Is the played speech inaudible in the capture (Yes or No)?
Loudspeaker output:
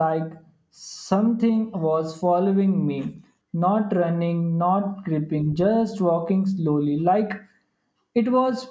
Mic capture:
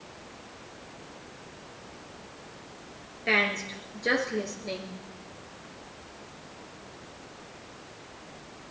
Yes